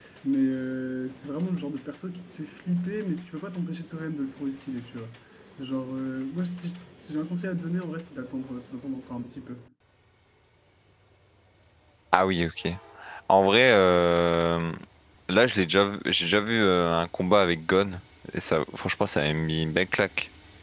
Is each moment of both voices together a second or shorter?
Yes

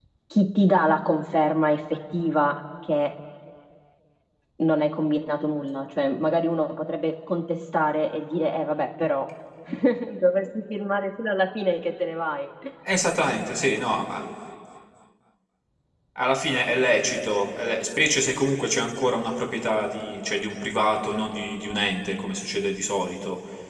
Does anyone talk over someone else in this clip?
No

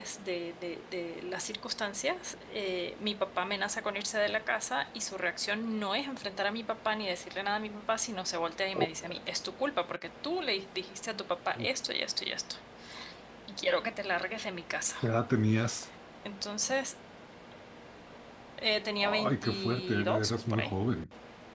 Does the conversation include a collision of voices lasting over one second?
Yes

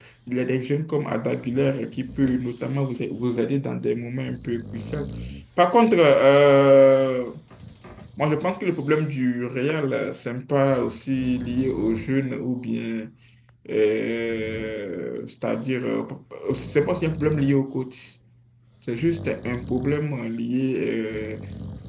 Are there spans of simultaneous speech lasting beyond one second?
No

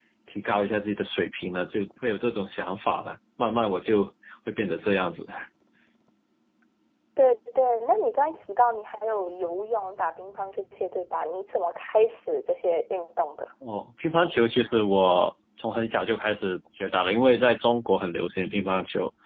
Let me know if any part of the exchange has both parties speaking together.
No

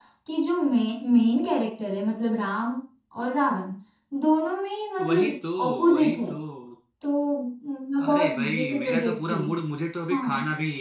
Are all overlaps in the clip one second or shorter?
No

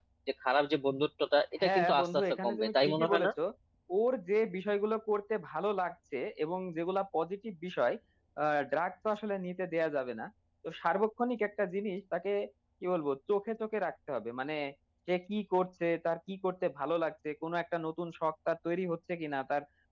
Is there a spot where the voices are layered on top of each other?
Yes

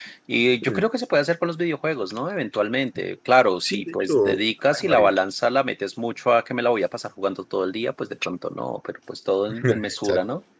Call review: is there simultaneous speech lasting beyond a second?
Yes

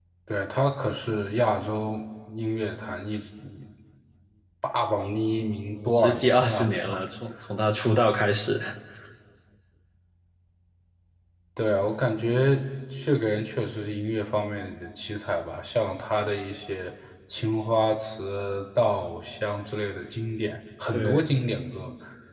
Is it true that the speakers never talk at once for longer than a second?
No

